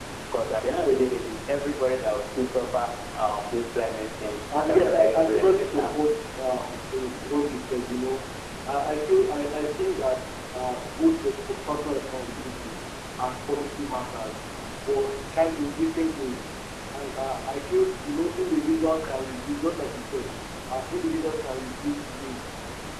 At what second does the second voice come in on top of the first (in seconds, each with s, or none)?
4.5 s